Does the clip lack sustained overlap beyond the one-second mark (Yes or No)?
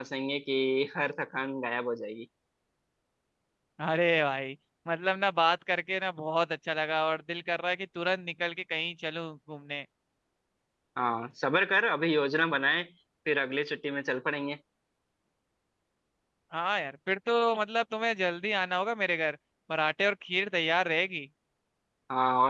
Yes